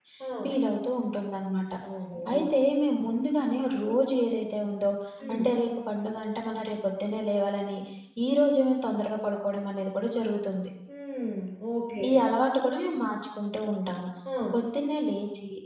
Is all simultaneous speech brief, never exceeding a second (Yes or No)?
Yes